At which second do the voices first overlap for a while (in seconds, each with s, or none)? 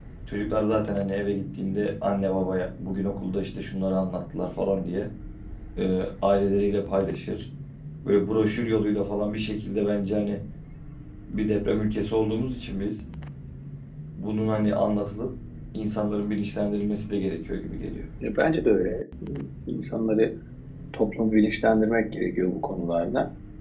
none